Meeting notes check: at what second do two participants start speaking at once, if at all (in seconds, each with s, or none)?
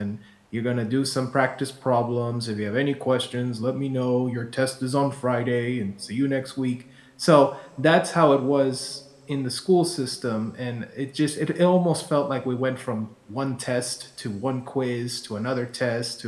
none